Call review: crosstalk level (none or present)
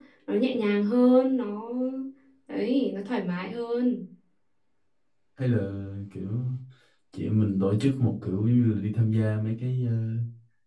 none